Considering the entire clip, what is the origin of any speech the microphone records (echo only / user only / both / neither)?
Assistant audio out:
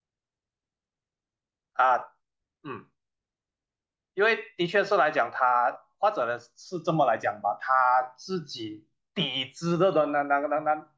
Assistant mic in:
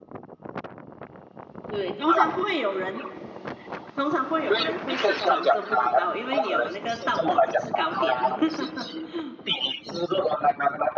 both